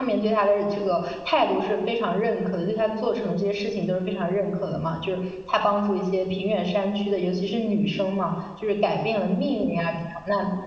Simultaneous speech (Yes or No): No